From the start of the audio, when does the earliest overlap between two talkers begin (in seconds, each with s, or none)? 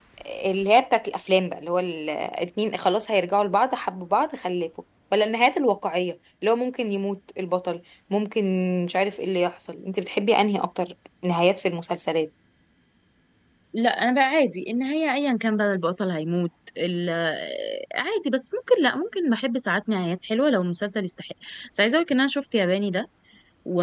none